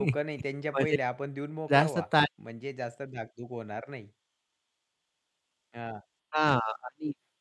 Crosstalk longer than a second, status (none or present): none